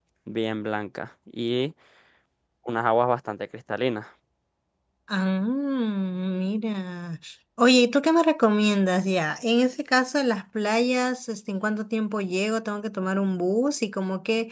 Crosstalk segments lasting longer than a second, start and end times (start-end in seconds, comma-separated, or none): none